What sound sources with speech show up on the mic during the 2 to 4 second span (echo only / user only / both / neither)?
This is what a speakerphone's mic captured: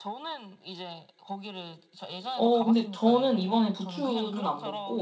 both